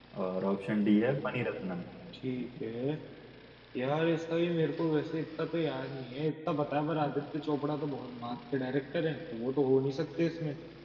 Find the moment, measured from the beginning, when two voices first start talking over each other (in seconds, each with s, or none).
none